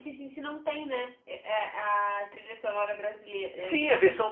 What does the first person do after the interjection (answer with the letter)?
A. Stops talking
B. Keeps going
A